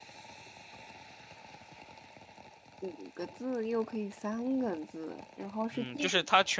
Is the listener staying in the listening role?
No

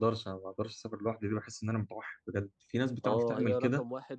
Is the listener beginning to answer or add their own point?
Yes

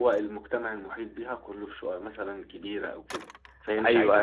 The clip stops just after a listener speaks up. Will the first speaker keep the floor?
Yes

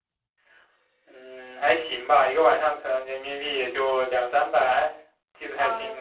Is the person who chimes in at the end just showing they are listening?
No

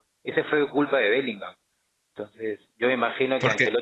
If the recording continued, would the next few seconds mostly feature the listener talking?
No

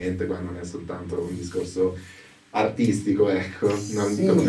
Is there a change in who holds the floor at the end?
Yes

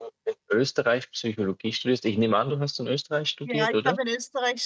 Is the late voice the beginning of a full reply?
Yes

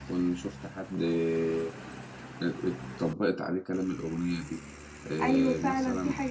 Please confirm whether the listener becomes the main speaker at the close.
Yes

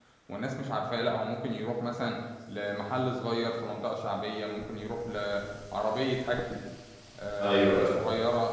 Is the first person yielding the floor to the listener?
No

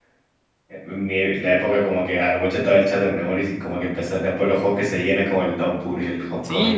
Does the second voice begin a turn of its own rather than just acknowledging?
Yes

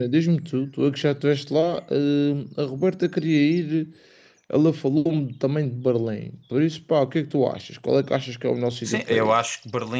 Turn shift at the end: Yes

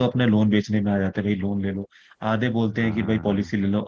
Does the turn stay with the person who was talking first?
Yes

